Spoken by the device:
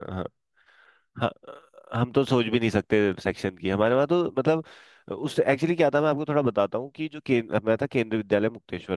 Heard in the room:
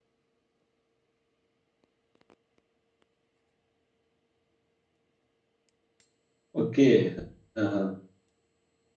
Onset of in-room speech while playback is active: 7 s

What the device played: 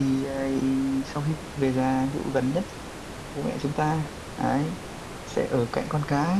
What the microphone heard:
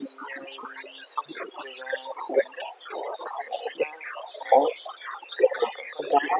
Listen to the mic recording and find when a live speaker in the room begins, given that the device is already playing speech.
none

